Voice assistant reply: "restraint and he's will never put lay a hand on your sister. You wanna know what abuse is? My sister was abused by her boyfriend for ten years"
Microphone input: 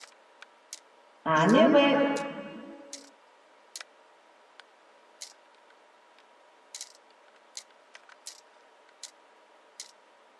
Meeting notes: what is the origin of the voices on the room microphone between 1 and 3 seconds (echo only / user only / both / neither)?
user only